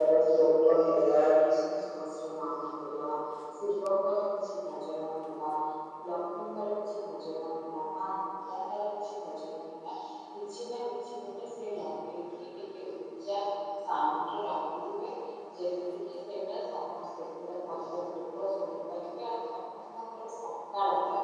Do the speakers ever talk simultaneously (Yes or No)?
No